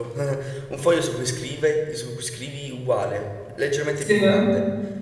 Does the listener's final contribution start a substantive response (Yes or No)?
No